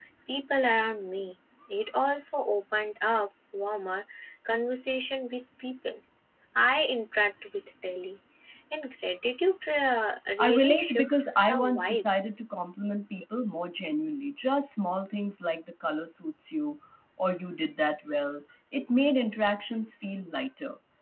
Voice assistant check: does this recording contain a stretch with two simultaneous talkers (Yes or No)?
Yes